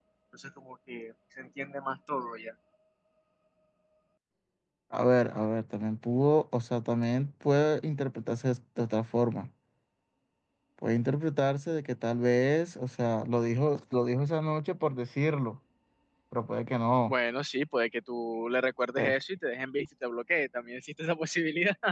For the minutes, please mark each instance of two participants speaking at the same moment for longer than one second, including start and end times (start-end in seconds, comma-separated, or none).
none